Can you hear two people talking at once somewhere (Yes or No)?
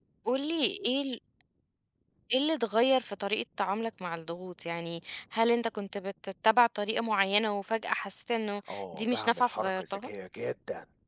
Yes